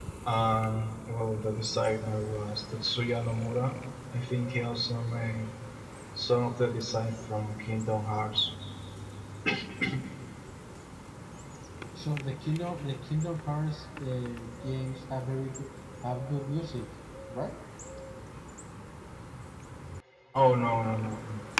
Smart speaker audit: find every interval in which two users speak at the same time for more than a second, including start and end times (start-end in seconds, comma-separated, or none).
none